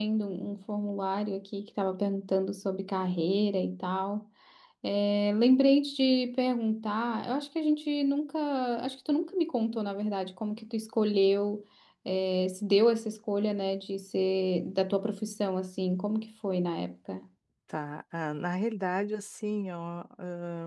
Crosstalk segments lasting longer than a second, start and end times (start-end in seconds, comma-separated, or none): none